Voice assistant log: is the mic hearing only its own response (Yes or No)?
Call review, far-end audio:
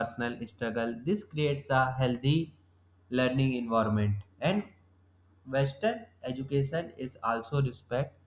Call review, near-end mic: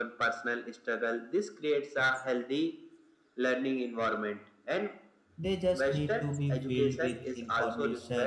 No